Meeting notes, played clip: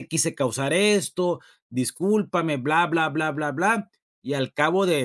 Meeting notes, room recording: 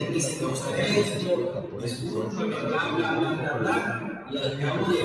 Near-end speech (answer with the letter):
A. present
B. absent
A